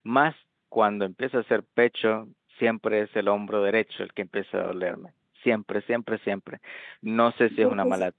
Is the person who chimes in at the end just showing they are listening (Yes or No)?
Yes